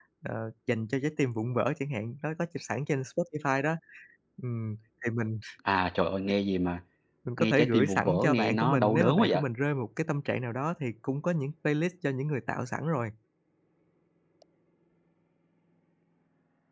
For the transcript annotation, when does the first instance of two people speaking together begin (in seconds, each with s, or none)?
7.4 s